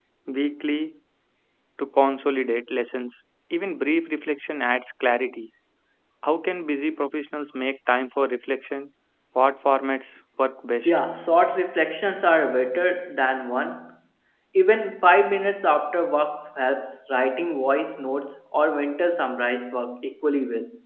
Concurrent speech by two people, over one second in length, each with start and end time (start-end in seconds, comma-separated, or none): none